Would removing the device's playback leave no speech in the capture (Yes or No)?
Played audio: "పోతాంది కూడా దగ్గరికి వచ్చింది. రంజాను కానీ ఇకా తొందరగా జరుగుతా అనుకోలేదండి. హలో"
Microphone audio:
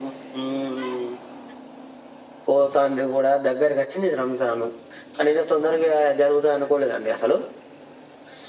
Yes